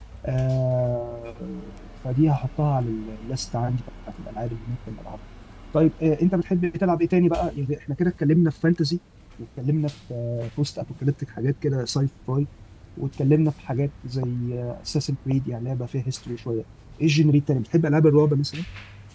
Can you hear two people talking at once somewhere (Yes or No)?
No